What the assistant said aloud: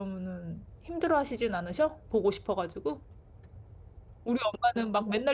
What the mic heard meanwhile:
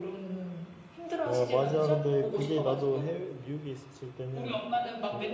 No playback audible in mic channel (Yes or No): No